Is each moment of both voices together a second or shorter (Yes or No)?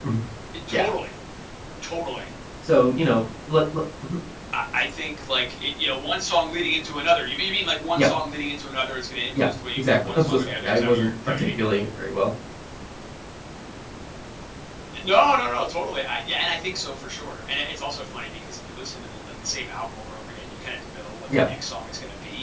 No